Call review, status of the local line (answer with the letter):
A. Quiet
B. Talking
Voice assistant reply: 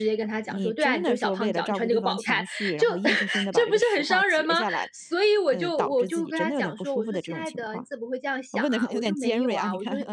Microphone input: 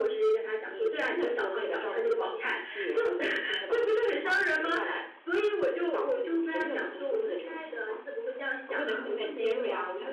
A